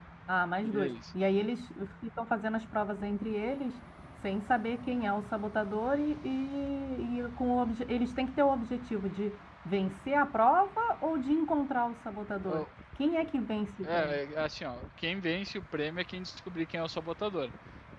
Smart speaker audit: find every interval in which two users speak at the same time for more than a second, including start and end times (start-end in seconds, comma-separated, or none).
none